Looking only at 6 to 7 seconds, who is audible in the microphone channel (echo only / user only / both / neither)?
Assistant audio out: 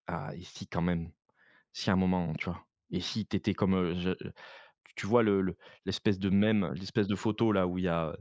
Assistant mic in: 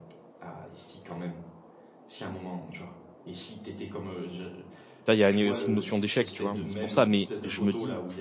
both